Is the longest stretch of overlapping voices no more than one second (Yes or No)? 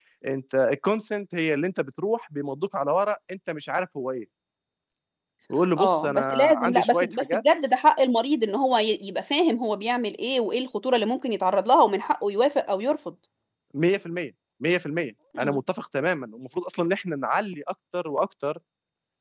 No